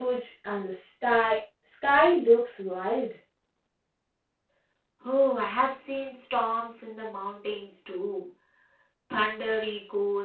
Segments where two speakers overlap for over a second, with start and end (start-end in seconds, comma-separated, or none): none